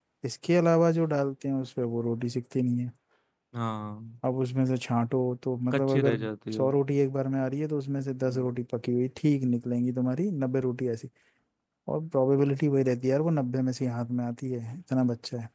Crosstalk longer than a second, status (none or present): none